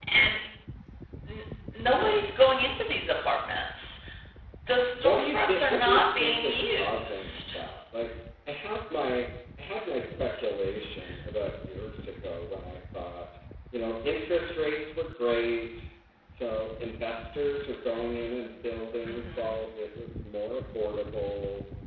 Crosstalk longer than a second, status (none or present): present